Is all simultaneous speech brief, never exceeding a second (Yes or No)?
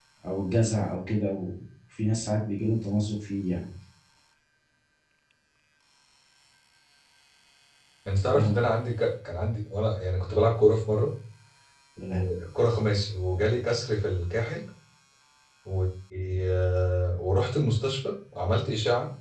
Yes